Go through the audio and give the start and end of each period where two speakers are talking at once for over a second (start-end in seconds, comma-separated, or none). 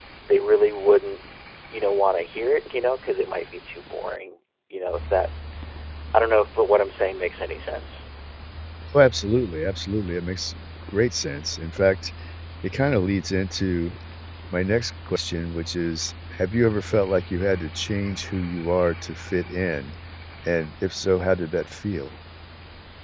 none